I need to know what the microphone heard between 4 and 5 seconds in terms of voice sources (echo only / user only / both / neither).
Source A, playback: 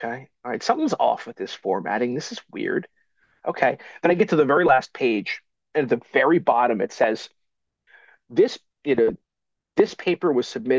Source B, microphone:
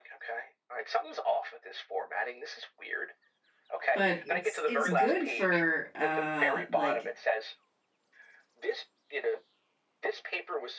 both